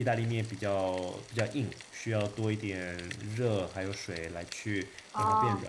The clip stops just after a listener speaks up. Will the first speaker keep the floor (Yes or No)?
No